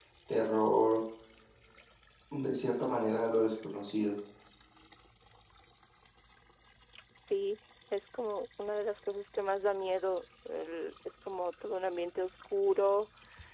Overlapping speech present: No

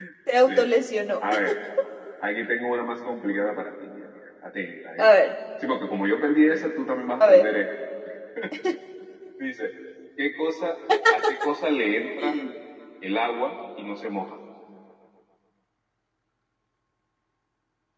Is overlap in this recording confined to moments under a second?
Yes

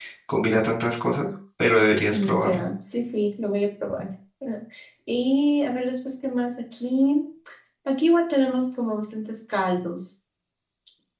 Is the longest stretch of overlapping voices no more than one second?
Yes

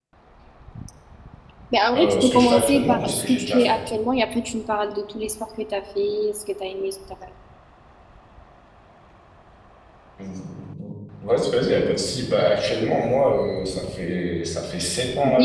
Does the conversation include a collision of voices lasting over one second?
Yes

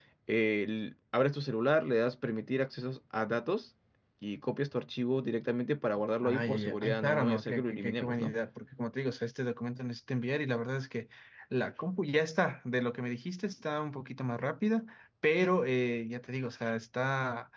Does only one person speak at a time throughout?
No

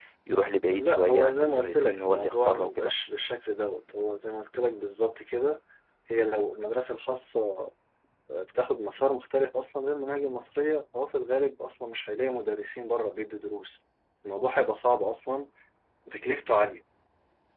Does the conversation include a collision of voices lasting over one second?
Yes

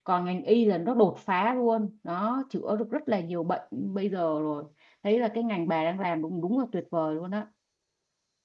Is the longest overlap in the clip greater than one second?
No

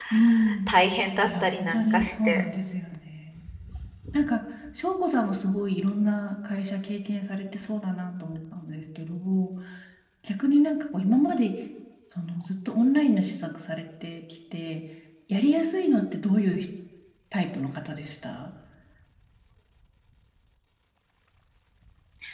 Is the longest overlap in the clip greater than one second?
Yes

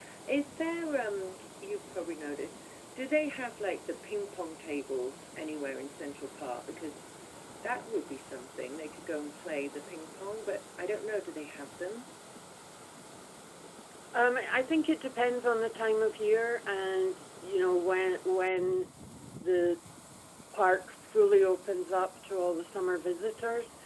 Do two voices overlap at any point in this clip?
No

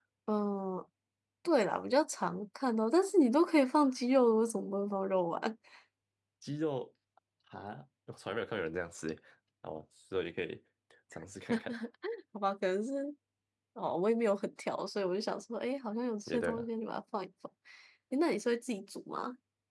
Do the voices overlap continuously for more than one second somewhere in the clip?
No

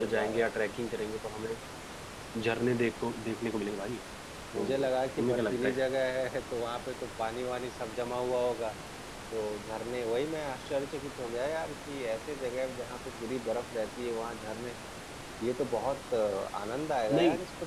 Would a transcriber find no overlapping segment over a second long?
No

